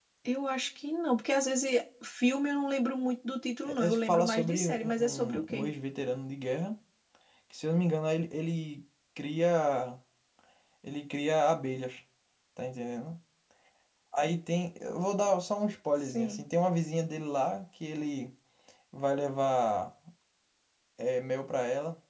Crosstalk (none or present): present